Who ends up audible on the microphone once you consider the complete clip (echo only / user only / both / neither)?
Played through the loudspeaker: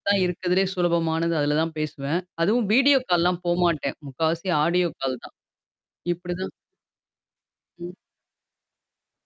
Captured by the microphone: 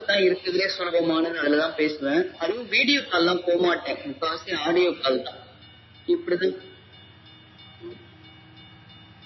echo only